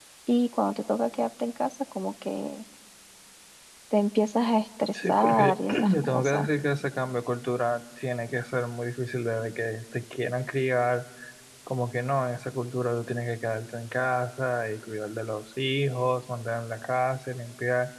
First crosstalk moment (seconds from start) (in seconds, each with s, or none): 4.9 s